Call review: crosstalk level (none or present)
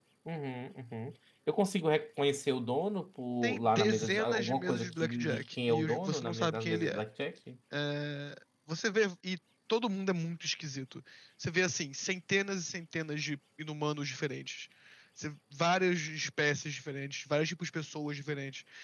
present